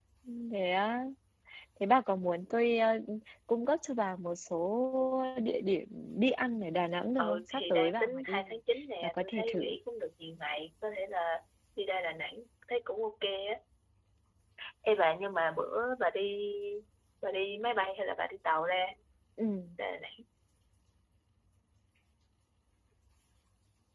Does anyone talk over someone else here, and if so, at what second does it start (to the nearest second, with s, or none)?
7 s